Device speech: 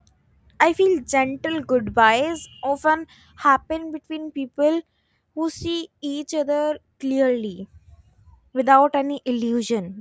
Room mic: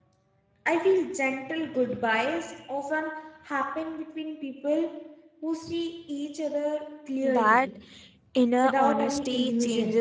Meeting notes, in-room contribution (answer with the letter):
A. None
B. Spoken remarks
B